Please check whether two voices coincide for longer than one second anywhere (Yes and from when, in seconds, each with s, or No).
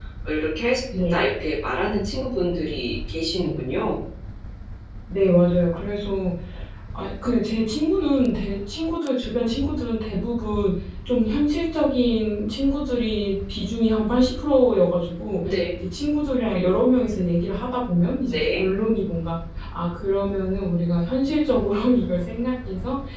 No